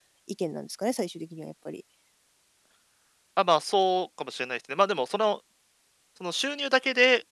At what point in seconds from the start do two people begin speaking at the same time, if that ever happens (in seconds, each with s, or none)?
none